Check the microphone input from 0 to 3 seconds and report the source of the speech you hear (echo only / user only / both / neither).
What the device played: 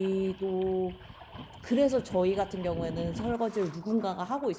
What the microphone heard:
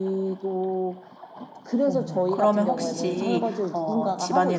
both